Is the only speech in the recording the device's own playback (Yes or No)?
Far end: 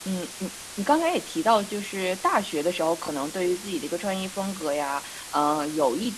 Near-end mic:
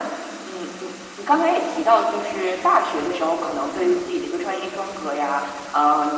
No